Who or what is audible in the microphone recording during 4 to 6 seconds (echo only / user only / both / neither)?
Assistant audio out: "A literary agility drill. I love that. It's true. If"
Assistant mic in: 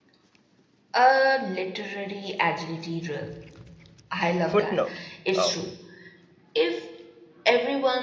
both